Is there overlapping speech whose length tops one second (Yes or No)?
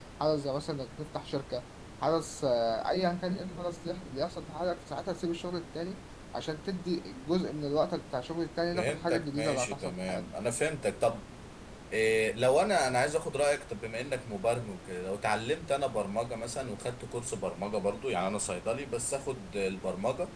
Yes